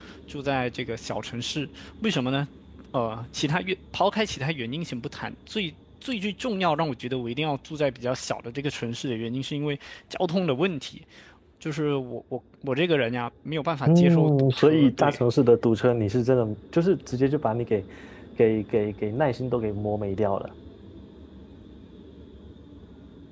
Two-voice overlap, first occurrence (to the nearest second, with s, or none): 14 s